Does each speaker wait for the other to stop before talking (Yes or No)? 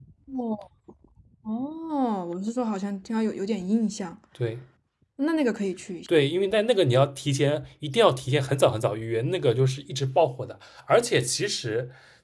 Yes